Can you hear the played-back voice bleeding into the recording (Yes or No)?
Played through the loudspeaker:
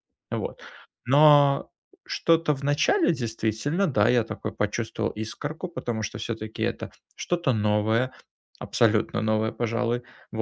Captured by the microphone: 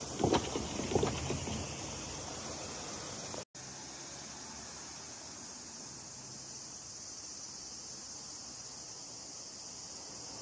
No